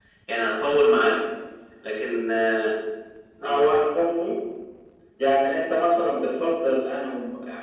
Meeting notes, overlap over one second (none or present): none